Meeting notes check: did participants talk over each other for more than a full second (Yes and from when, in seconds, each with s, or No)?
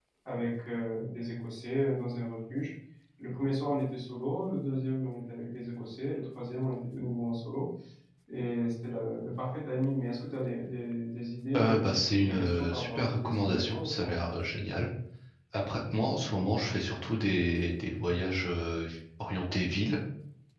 Yes, from 11.5 s